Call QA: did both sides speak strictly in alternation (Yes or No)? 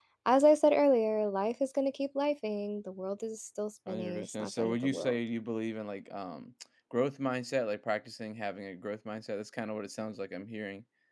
No